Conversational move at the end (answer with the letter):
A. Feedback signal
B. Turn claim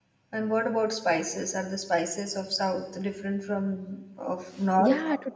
B